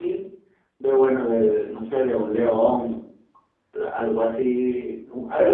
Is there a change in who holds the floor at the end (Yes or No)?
Yes